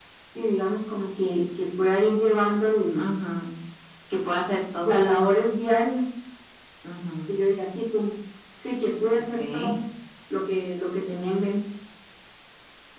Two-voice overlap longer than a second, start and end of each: none

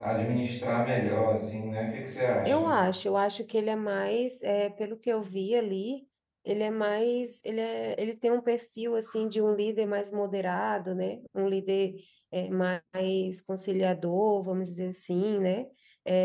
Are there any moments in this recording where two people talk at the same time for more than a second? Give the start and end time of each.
none

